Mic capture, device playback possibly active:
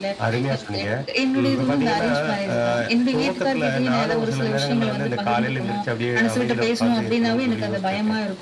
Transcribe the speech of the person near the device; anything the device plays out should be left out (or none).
ம்.